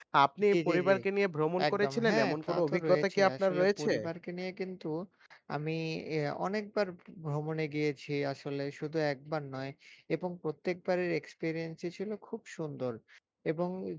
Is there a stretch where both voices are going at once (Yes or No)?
Yes